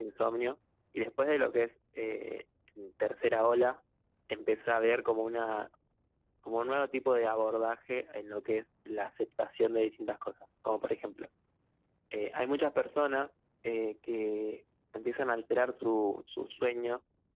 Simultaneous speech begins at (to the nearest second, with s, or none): none